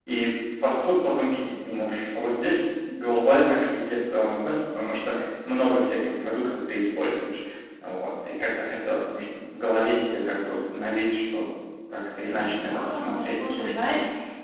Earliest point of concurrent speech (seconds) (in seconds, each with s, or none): 12.3 s